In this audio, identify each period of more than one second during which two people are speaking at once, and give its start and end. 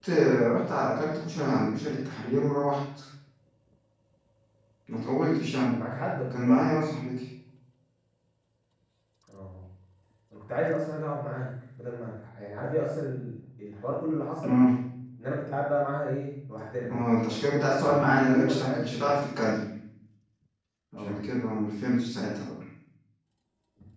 17.7-19.1

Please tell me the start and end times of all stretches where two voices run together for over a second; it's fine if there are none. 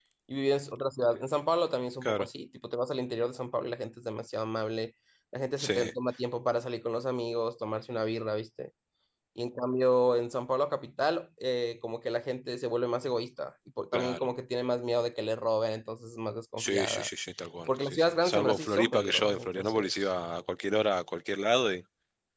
17.7-19.9

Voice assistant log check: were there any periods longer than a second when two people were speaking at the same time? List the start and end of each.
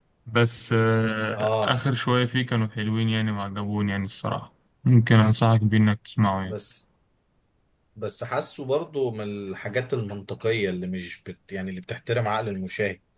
none

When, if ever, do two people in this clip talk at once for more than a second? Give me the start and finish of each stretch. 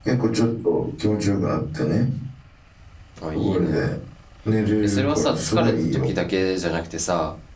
4.8-6.1

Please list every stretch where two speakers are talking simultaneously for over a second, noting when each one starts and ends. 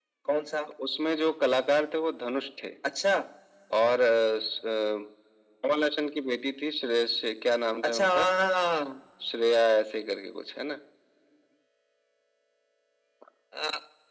none

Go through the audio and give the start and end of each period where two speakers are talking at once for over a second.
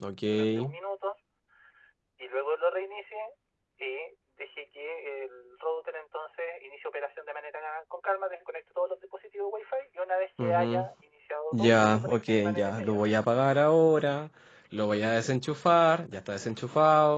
11.5-13.1

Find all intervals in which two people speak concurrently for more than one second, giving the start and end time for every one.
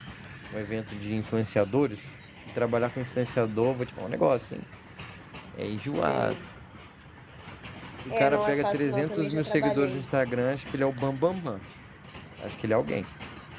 8.1-10.0

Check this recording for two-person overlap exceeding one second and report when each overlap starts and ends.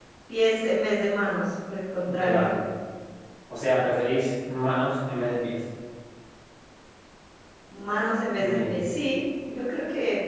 none

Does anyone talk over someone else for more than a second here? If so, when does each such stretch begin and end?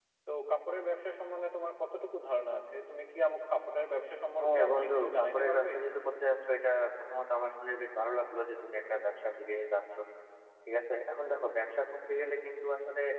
4.4-5.7

